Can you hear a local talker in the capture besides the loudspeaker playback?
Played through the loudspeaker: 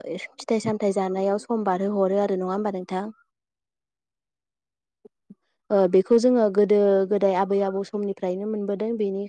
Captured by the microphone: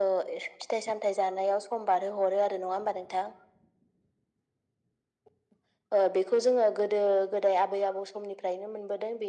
No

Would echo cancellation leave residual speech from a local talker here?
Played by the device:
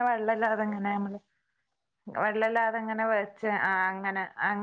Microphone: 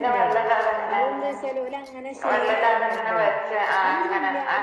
Yes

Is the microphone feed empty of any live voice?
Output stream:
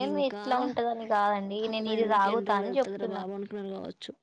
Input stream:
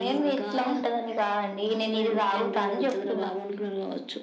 Yes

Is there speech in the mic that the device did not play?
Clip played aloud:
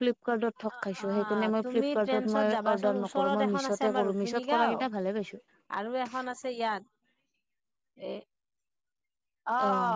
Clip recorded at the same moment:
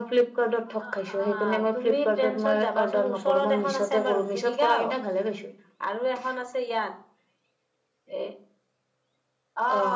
No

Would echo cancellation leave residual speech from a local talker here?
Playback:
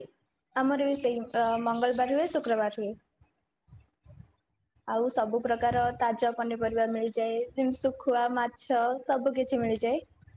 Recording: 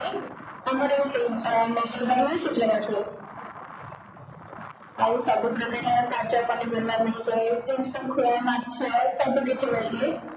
No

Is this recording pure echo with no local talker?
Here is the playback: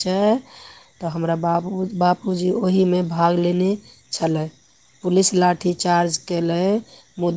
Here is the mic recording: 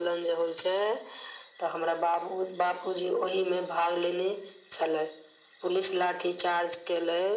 Yes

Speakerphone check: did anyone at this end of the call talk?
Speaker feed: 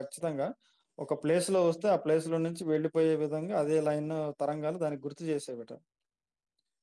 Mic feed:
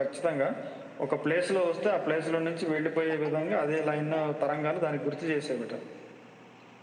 Yes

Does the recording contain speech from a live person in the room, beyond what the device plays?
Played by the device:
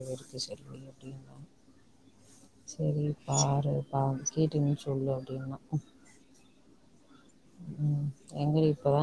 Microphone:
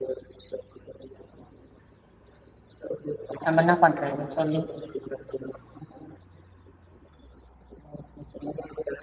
Yes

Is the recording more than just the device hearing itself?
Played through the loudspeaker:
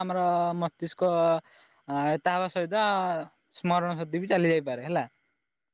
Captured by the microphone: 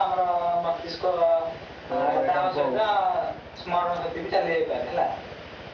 Yes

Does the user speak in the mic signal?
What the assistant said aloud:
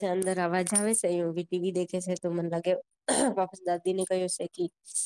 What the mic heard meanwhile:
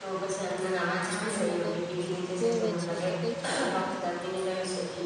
Yes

